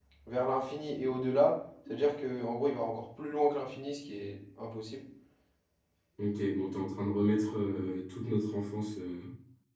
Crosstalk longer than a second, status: none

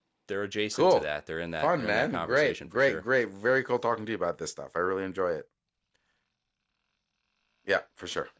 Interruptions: present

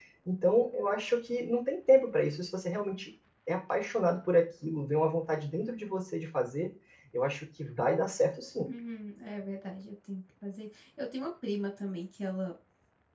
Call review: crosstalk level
none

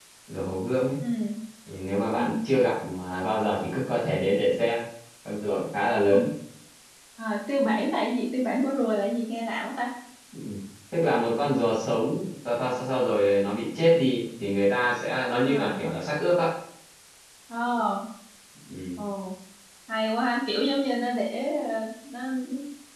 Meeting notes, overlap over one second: none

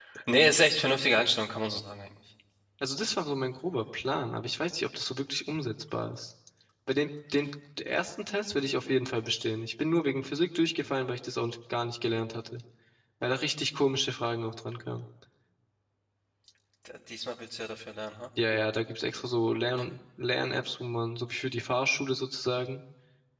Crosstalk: none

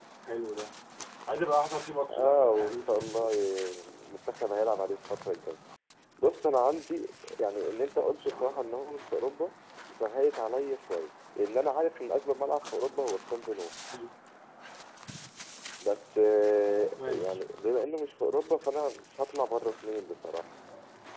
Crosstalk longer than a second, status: present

